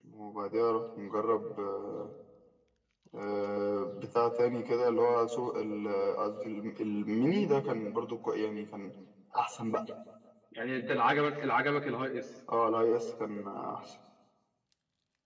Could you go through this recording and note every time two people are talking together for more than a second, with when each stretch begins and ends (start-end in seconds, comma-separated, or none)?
none